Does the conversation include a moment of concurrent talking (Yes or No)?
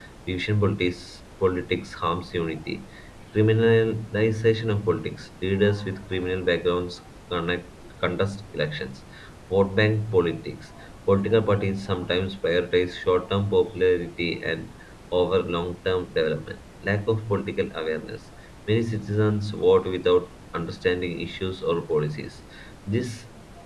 No